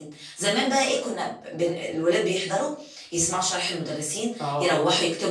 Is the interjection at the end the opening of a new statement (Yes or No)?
No